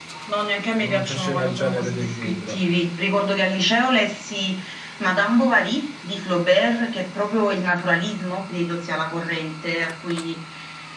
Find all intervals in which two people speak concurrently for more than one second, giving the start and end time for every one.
0.7-2.6

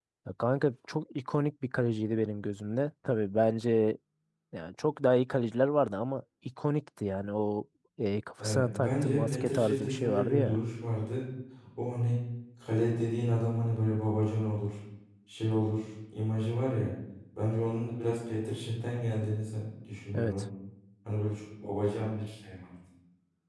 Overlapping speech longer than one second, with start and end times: 8.4-10.6

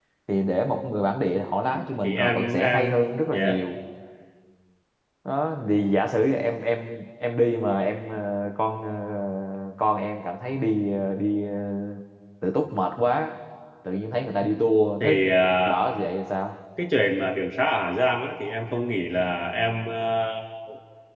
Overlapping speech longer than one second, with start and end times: 2.0-3.6

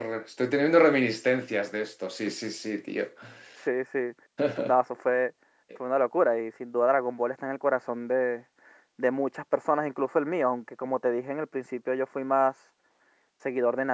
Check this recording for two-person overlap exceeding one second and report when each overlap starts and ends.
none

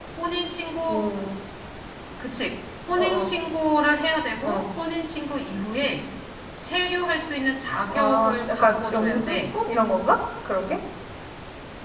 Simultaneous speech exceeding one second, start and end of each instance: 7.9-9.4

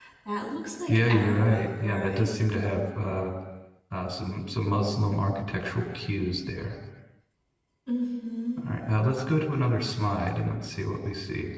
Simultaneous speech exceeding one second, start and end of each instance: 0.9-2.4

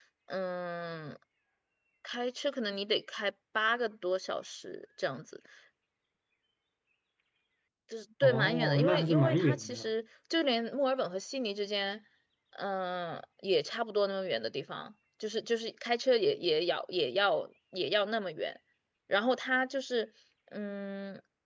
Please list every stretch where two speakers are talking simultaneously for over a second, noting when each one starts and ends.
8.2-9.8

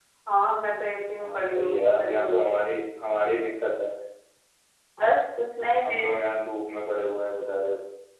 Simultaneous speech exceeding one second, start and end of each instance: 1.1-2.5

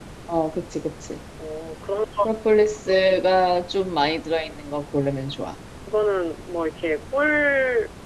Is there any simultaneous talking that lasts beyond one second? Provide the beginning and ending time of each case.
none

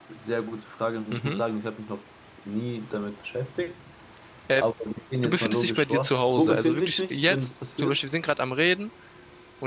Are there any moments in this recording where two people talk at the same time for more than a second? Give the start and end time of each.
5.2-8.0

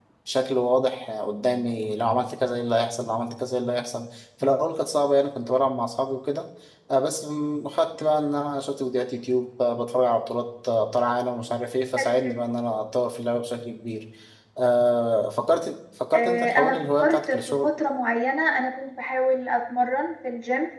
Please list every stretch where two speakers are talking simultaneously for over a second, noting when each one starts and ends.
16.1-17.7

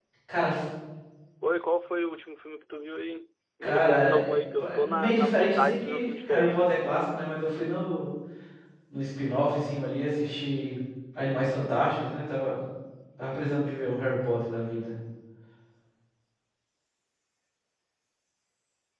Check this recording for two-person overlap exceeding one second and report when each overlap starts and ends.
3.6-6.6

